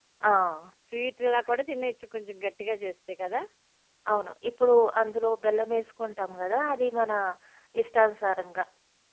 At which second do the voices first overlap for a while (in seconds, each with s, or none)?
none